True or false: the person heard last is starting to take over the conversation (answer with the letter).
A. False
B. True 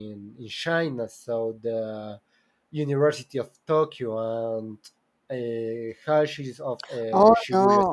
B